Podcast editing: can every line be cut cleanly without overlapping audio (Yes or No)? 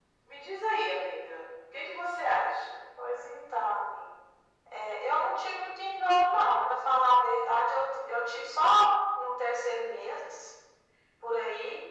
Yes